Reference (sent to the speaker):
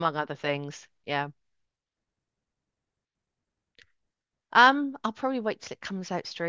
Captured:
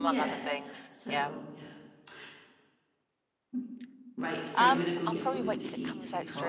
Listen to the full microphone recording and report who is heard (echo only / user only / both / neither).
both